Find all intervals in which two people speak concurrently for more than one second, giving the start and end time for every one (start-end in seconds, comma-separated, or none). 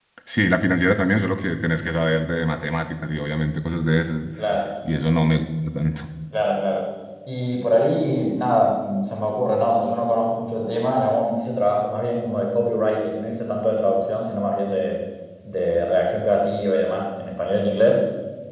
none